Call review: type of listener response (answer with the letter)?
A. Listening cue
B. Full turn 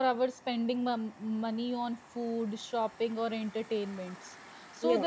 A